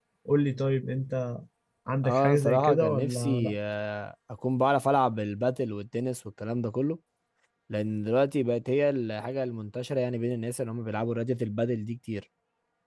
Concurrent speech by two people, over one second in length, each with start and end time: 2.0-3.6

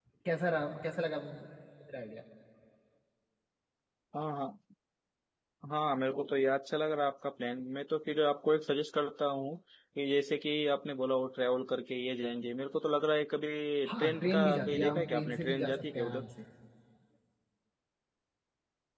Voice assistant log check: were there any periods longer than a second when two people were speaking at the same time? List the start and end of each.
13.9-16.2

